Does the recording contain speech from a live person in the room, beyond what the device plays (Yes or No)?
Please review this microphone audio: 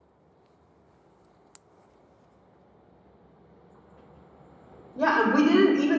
Yes